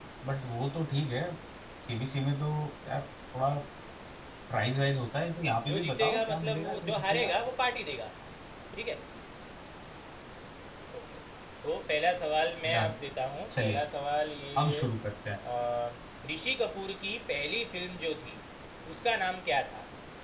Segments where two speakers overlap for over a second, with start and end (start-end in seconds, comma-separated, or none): 5.7-7.3